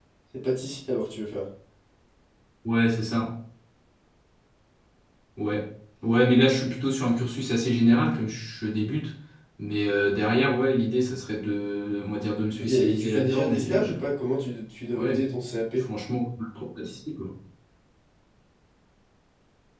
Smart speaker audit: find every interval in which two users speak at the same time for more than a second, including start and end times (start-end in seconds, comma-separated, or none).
12.6-13.8